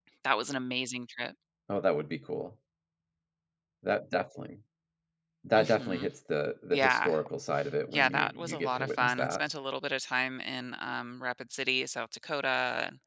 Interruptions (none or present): present